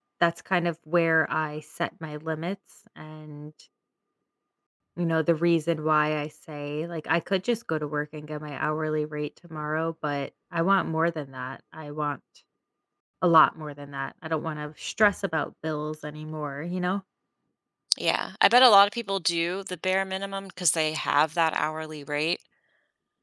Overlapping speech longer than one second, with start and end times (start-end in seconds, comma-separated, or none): none